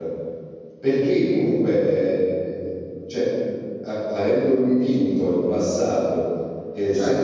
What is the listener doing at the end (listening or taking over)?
taking over